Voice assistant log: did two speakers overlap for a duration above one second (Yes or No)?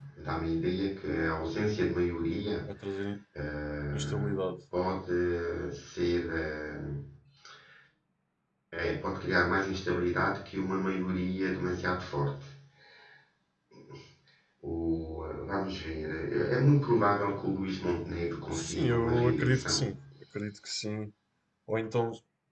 Yes